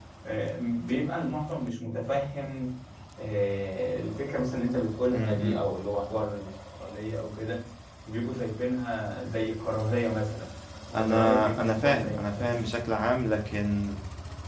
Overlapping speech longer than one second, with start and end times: 10.9-12.6

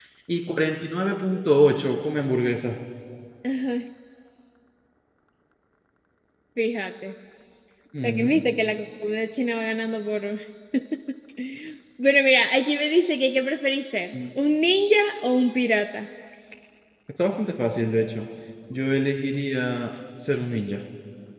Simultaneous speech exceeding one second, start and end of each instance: none

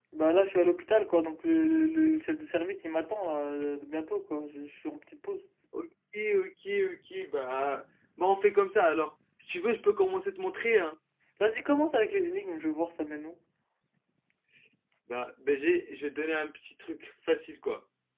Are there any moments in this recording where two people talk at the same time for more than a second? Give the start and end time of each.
none

